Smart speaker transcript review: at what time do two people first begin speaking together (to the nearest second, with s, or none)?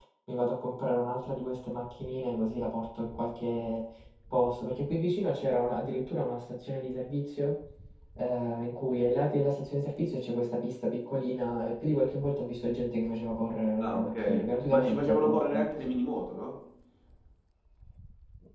14 s